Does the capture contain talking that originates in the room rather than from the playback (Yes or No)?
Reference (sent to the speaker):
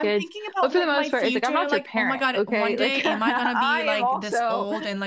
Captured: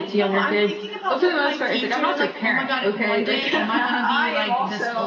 No